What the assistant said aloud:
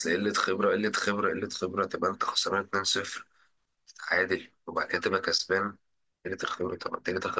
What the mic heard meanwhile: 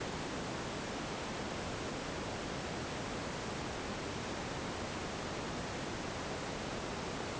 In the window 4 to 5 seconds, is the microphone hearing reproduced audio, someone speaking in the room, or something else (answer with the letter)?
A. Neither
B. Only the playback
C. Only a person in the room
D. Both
A